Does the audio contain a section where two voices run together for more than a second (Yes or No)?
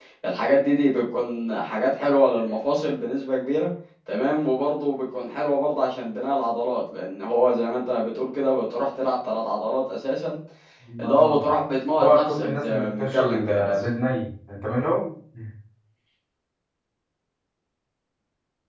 Yes